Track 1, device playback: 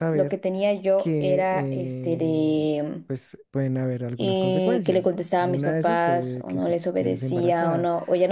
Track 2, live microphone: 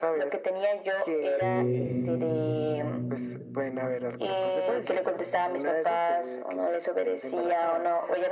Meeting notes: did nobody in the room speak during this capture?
No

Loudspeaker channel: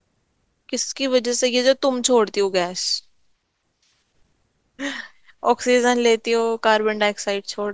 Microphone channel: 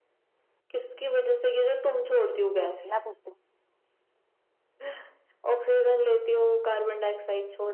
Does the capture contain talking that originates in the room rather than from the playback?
Yes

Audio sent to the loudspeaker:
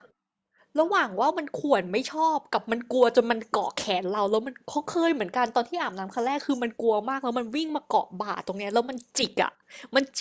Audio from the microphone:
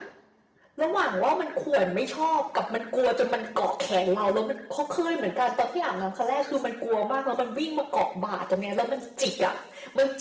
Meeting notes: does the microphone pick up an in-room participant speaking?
No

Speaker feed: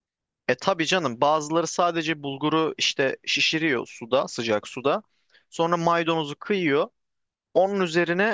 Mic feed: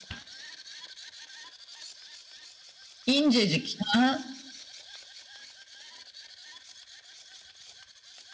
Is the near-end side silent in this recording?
No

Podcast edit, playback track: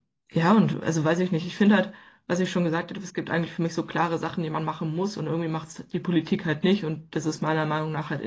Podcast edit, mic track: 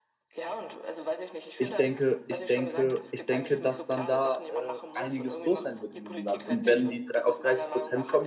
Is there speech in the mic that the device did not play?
Yes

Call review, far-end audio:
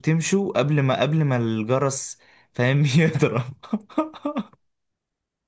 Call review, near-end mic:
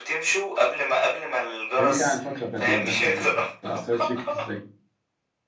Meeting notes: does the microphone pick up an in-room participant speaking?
Yes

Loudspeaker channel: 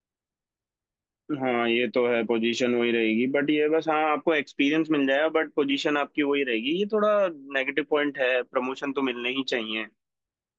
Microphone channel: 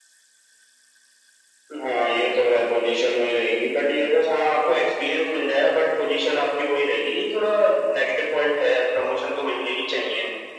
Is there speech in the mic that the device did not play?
No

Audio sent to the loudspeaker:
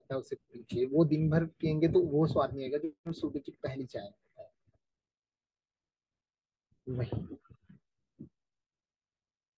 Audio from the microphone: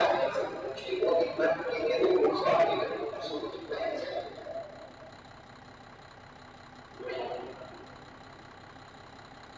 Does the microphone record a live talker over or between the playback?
No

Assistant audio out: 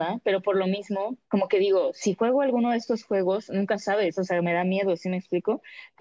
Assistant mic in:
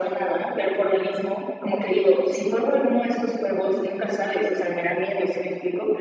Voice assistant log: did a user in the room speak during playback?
No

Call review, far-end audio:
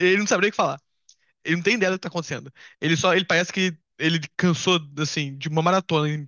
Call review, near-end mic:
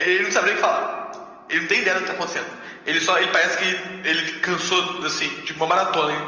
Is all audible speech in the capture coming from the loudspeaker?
Yes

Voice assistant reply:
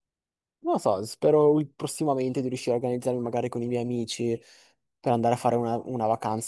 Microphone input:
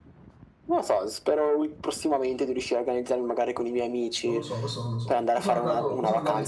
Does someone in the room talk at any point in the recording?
Yes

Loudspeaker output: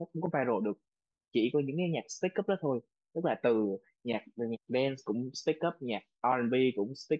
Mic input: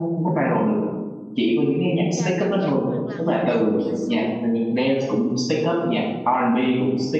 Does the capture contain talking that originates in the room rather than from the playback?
Yes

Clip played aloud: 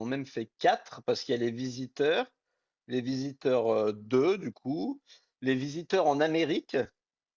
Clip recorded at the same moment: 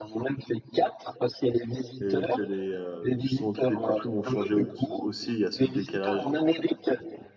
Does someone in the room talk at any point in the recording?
Yes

